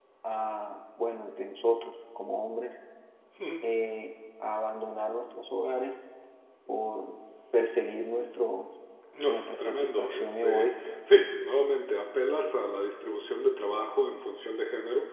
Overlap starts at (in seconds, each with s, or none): 9.3 s